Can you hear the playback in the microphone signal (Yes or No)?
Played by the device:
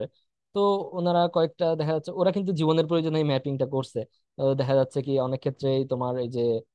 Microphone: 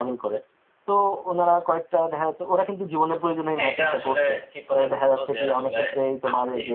Yes